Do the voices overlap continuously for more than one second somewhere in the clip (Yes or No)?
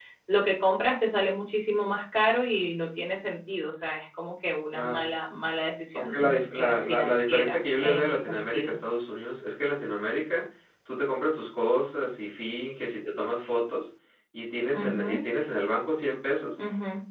Yes